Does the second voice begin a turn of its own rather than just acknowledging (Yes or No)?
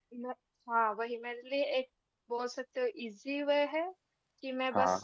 No